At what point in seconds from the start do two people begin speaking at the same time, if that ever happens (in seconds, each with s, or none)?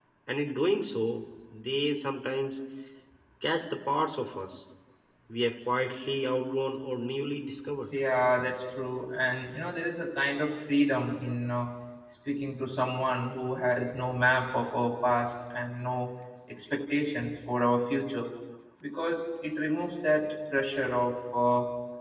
none